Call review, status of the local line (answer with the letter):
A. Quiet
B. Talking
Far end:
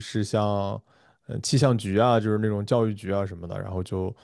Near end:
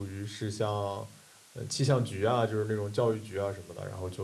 A